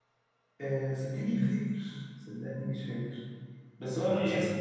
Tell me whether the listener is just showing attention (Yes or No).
Yes